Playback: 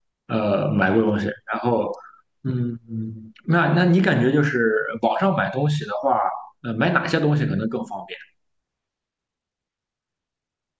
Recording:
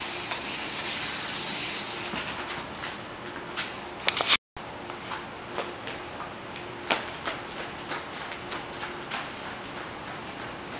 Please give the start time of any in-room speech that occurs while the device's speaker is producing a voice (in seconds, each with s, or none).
none